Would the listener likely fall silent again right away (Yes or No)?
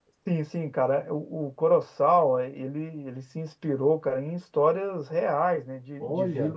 Yes